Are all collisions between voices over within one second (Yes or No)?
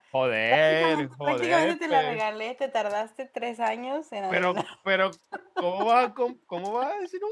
No